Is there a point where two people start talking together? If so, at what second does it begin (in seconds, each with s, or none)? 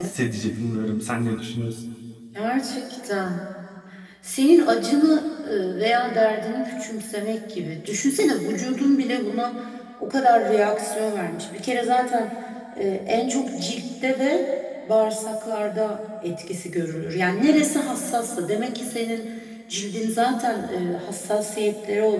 none